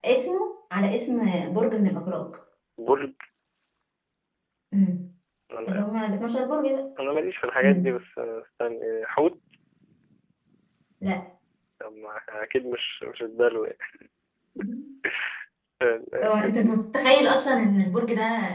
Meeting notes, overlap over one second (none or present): none